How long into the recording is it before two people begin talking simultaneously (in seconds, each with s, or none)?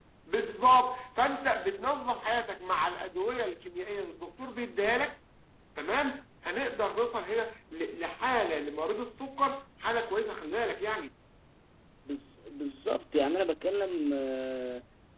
none